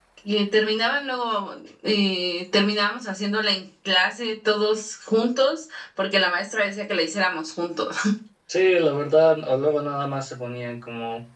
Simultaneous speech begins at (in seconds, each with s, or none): none